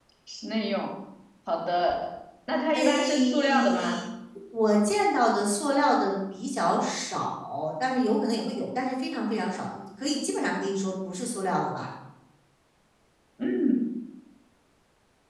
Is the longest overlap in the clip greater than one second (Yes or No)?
Yes